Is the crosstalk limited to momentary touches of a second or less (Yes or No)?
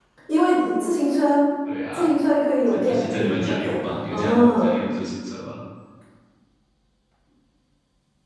No